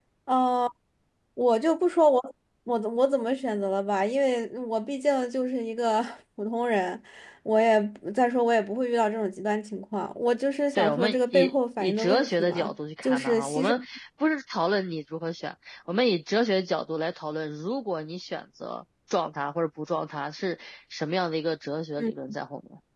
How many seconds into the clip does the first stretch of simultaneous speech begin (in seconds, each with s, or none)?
10.8 s